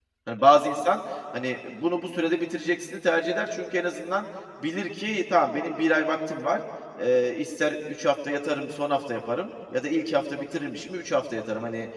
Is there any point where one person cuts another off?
No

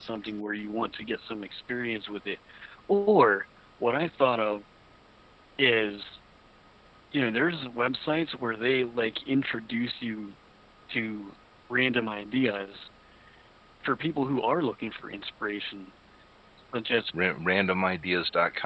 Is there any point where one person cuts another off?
No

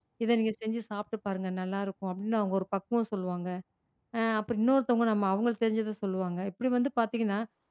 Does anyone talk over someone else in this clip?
No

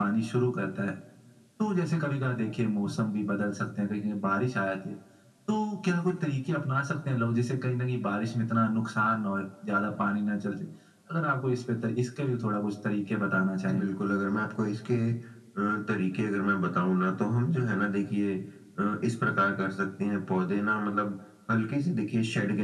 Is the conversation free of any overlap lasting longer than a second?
Yes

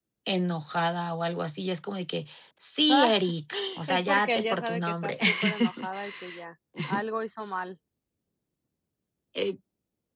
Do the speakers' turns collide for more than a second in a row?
Yes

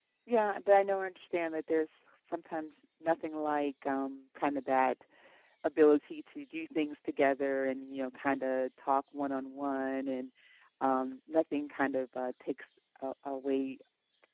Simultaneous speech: No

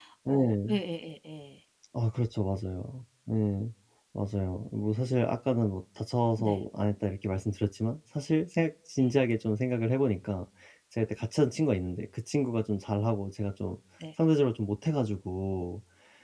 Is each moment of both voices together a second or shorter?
Yes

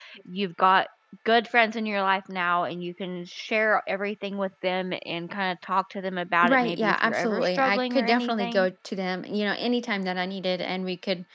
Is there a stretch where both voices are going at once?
Yes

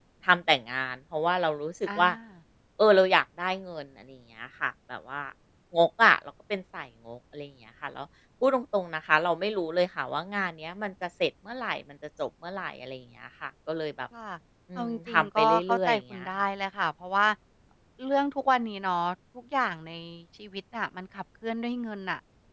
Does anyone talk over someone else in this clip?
Yes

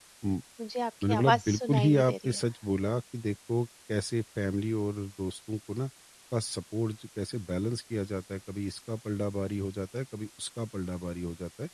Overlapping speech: Yes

